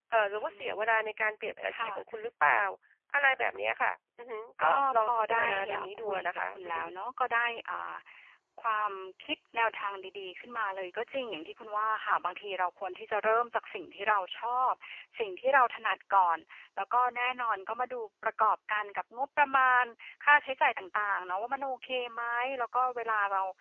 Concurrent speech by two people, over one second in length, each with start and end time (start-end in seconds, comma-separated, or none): 4.6-6.8